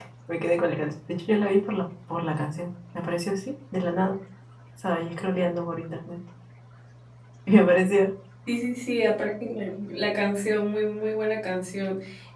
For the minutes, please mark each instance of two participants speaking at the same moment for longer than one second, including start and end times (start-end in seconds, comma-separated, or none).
none